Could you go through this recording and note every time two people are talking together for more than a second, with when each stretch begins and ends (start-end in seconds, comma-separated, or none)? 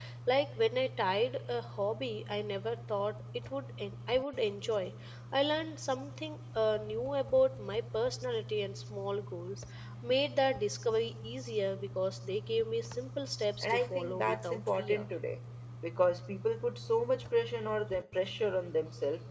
13.6-15.1